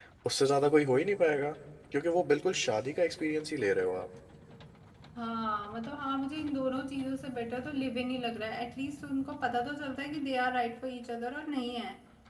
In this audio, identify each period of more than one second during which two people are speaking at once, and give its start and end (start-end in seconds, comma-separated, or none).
none